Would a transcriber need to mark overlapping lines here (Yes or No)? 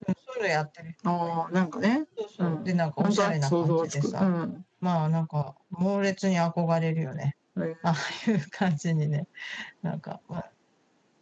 Yes